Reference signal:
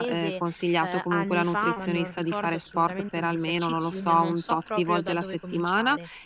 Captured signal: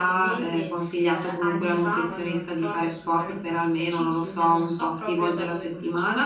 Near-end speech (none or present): none